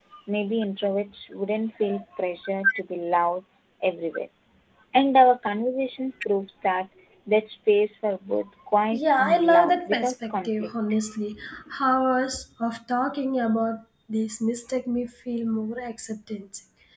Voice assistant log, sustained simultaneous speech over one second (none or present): present